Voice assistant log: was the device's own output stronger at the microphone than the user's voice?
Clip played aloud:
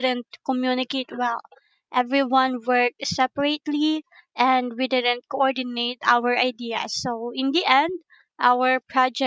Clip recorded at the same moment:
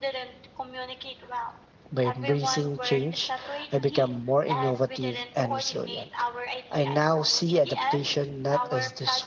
No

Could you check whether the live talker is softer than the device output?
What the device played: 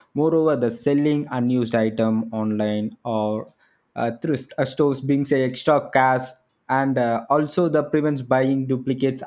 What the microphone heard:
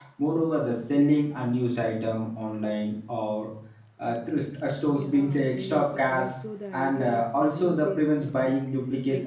Yes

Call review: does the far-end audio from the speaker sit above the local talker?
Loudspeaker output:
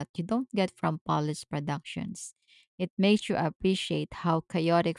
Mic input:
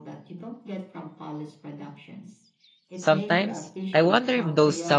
No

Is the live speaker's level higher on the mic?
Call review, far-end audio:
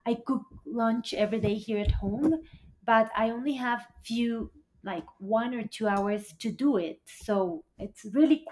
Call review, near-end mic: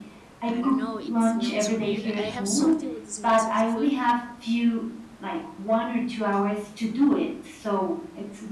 No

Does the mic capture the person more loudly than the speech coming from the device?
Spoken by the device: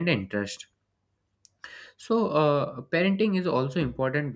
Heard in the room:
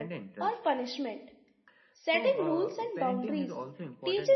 Yes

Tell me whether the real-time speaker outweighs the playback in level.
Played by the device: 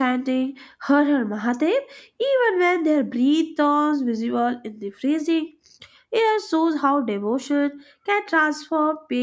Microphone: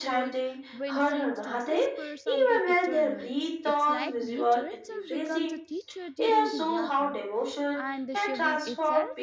No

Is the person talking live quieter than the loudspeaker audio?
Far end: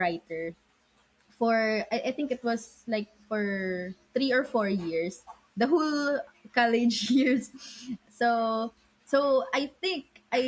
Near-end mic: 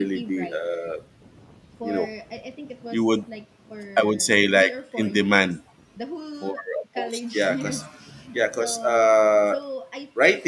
No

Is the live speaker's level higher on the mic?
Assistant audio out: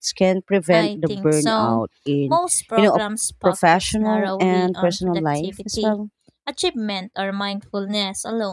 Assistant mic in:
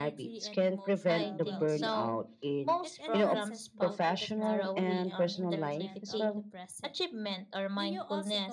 No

